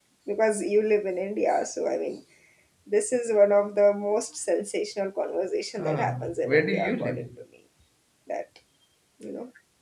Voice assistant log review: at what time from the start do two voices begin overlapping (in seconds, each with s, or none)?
5.8 s